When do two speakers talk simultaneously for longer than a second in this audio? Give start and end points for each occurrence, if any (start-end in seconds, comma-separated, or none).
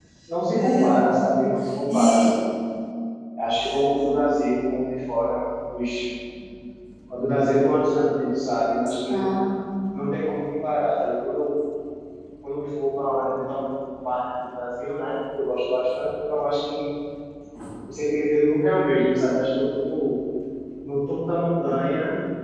none